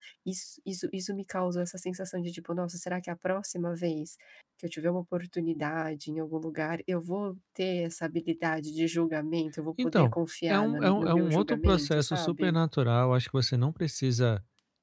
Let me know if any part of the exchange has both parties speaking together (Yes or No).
Yes